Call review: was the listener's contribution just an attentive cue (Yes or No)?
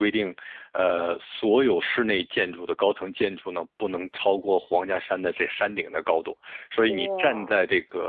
Yes